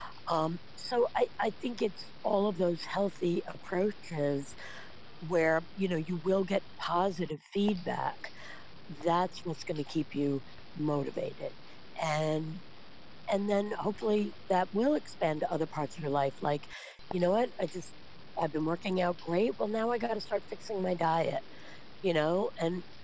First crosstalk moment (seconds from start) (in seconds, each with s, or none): none